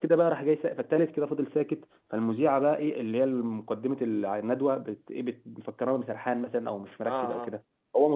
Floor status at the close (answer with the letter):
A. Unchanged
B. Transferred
A